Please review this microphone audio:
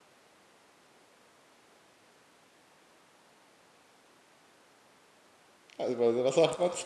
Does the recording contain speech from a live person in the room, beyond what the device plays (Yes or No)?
Yes